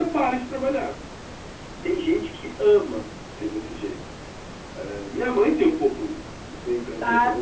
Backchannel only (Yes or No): No